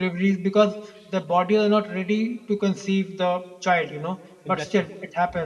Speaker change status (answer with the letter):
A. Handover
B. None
B